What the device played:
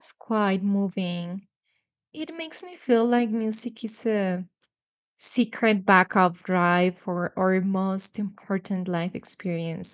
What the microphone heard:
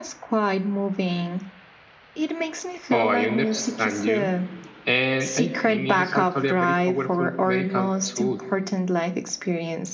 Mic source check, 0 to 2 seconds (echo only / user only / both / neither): echo only